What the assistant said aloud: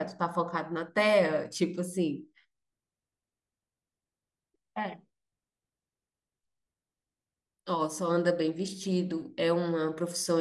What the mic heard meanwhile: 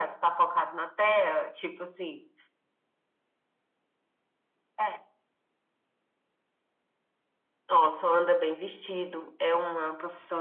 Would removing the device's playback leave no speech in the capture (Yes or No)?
Yes